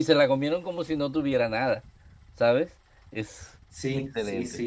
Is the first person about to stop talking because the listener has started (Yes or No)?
Yes